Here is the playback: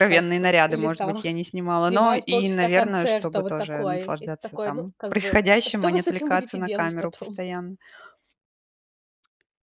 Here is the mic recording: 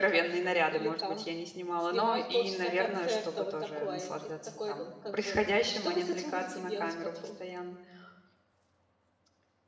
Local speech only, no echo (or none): none